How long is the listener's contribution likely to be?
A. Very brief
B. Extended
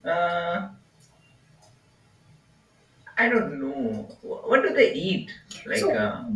A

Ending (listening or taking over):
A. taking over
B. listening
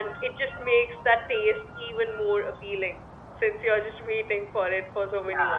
A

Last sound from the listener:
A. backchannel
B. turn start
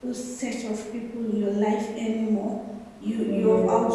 A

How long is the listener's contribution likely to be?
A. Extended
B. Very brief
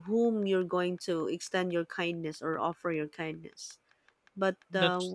B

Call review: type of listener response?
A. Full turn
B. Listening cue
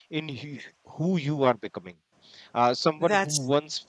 B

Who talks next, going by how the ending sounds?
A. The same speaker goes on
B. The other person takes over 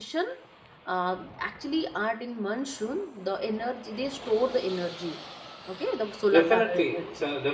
B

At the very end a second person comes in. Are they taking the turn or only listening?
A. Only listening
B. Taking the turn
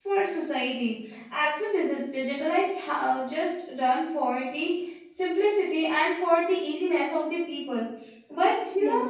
A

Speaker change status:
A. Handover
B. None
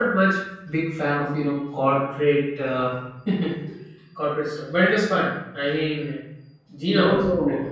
A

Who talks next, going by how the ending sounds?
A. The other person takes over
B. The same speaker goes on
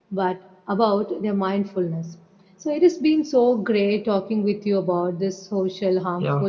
B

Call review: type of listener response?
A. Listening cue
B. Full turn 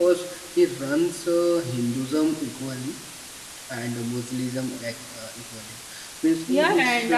B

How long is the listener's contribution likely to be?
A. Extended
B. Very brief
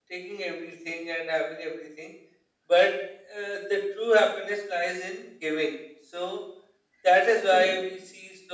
B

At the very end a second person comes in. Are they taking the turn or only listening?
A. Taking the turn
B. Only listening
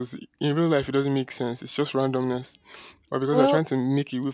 B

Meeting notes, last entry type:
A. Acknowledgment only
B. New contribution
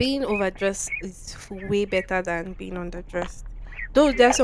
A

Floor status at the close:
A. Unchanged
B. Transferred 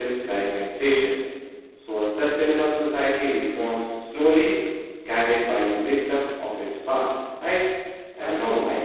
A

